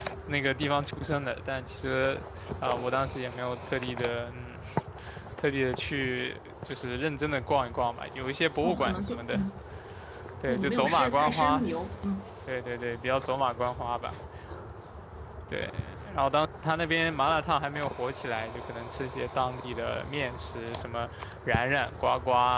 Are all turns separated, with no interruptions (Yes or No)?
No